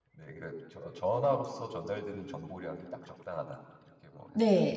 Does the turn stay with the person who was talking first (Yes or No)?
No